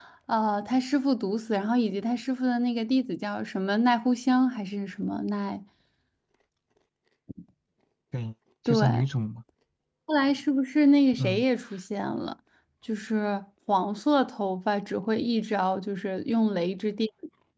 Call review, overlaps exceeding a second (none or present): none